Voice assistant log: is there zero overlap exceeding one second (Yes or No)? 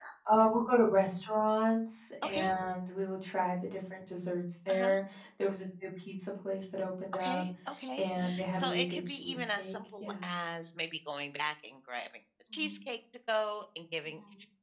No